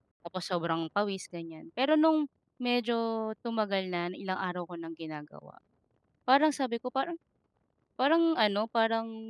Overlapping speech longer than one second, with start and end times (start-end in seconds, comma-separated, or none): none